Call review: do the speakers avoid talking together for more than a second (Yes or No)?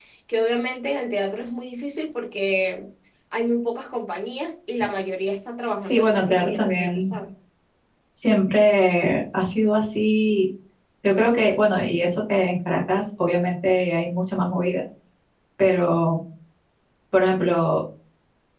No